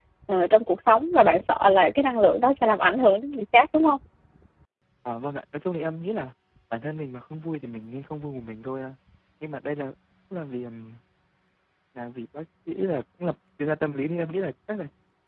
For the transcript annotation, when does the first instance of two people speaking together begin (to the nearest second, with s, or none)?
none